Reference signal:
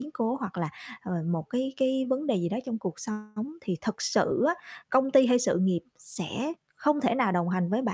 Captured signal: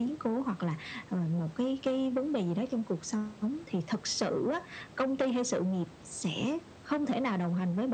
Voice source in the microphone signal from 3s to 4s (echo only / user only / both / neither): echo only